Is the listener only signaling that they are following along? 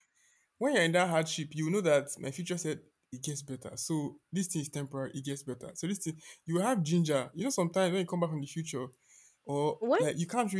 Yes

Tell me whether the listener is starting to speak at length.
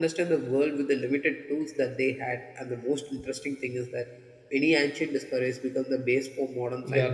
Yes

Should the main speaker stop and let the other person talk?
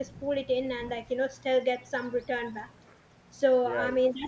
No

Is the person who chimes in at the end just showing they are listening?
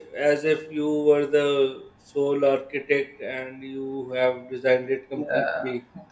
No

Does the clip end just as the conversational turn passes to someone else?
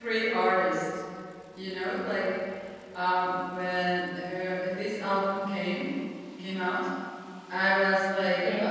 No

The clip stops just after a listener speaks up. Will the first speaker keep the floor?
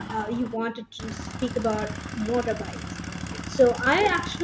Yes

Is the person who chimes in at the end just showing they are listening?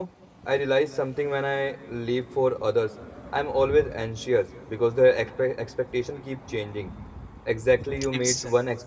Yes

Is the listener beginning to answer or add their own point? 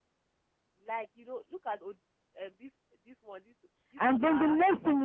Yes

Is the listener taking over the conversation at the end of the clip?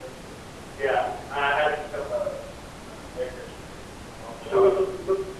Yes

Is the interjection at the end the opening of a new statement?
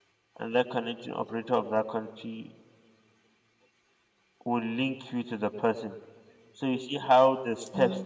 No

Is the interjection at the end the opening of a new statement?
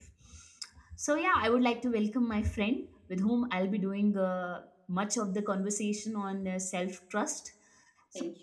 No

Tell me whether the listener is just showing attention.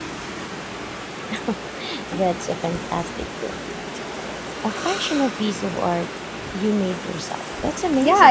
No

